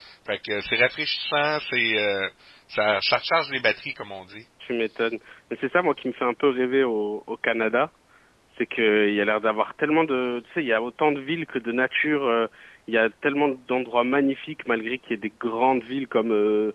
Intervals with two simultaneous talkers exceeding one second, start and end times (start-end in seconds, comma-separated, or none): none